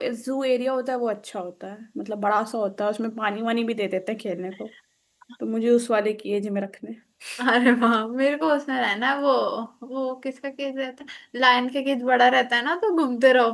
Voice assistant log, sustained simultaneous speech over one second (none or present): none